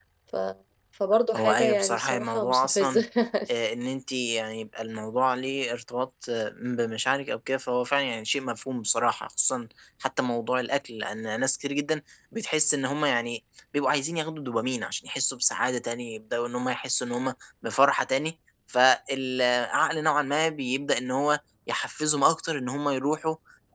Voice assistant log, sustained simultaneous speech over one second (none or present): present